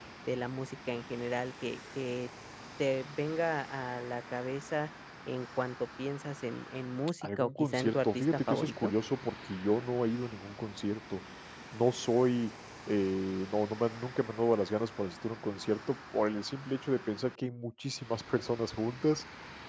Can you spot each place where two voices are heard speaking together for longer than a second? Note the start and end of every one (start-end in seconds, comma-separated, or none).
7.2-8.9